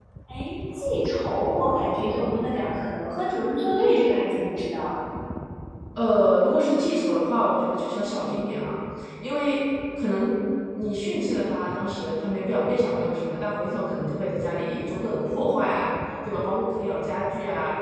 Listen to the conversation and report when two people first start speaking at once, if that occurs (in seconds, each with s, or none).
none